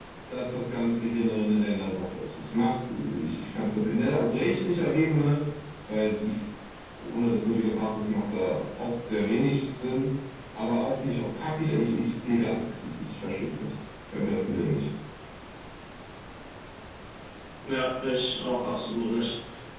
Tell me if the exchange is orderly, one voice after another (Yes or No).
Yes